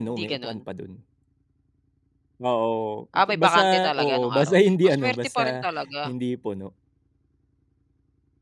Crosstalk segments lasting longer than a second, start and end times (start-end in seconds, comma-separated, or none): 3.3-5.6